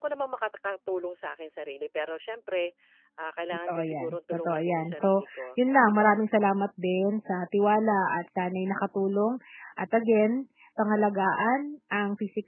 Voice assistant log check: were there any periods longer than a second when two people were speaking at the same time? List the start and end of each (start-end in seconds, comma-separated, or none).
3.7-6.1